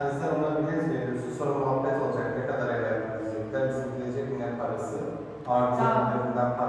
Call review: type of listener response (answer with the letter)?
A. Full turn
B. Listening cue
B